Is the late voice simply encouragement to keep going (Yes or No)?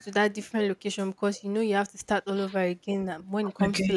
Yes